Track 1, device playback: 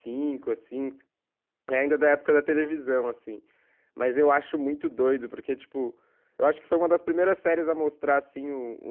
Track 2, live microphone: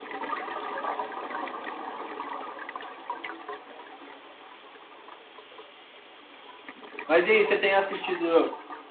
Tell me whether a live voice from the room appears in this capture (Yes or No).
Yes